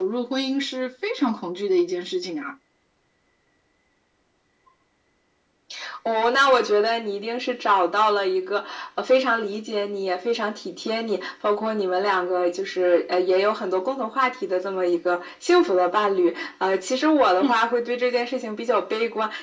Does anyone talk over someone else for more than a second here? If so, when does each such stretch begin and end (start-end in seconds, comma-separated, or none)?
none